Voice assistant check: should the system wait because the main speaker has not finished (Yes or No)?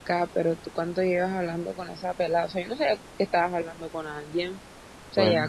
Yes